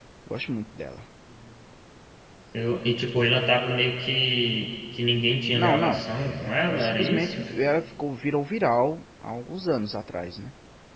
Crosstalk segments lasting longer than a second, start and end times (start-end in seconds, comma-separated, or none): 5.5-7.4